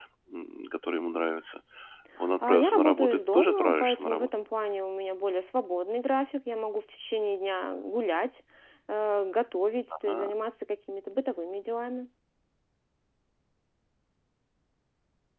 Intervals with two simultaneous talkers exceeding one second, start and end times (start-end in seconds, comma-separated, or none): 2.4-4.3